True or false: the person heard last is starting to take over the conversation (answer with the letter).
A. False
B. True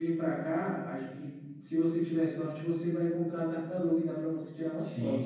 B